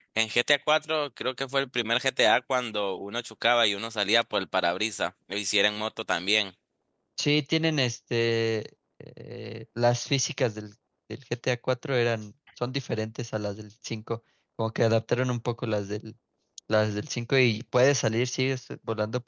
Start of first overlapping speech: none

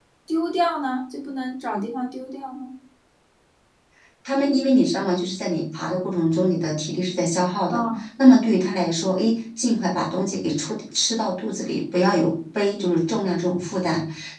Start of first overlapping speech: none

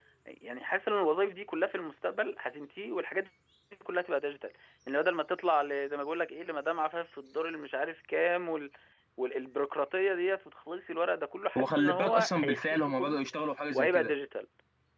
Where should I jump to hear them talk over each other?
11.6 s

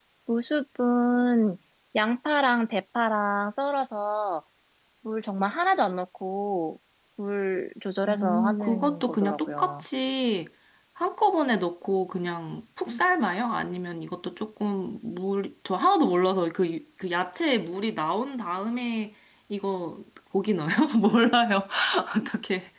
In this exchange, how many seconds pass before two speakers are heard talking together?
8.0 s

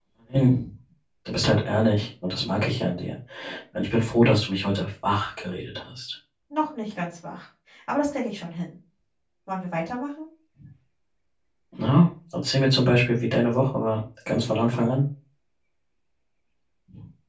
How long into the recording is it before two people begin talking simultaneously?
none

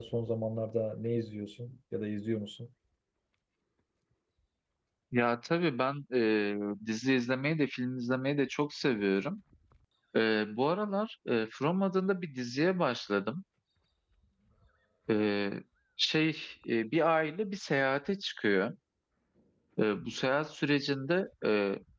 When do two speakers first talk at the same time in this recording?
none

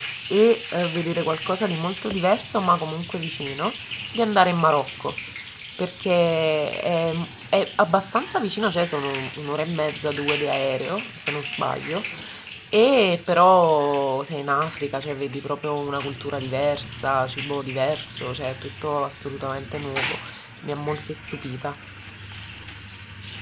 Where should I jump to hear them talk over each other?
none

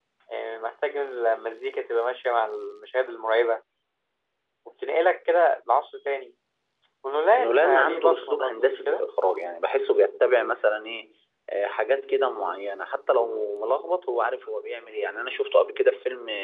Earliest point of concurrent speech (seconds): 7.4 s

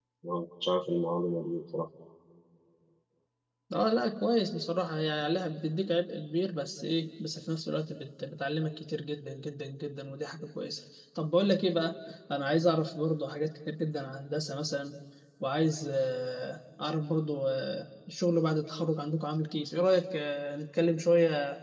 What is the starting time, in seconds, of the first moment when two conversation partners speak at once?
none

